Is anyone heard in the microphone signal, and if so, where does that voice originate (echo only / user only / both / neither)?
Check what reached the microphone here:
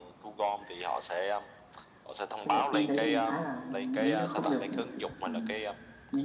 both